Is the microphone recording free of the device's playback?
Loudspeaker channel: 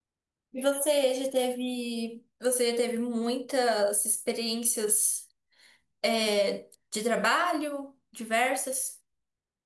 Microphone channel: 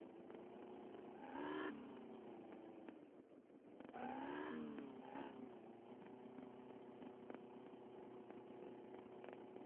Yes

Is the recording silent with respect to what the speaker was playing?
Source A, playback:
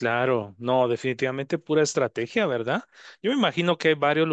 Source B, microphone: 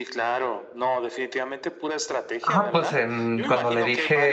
No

